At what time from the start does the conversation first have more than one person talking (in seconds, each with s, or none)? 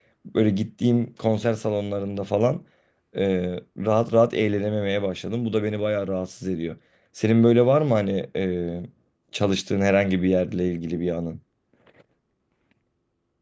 none